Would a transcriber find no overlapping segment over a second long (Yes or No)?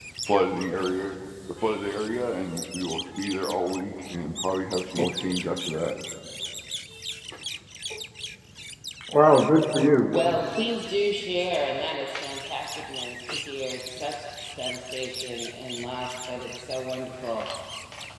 Yes